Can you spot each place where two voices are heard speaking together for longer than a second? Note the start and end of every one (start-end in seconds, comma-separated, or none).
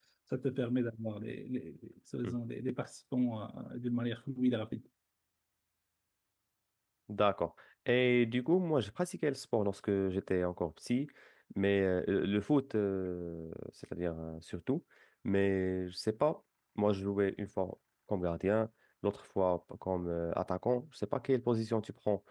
none